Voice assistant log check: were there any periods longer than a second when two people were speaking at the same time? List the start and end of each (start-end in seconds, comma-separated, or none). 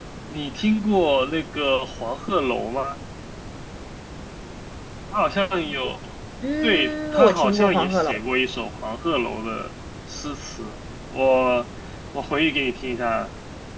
6.6-8.2